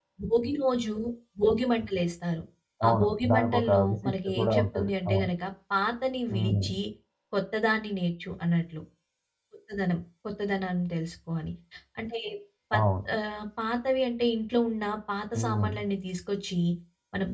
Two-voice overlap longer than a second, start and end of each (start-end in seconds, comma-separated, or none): 2.9-5.3